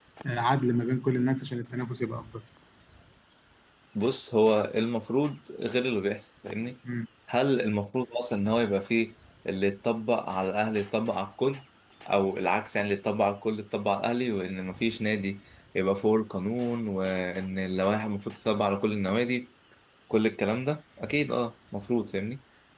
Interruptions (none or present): none